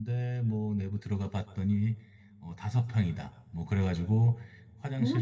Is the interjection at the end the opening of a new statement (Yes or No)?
No